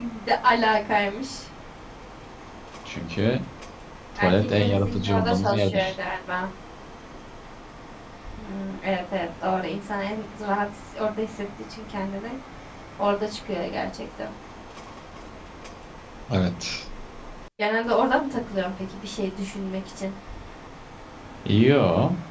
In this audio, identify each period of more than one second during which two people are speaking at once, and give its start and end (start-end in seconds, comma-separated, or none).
4.2-6.0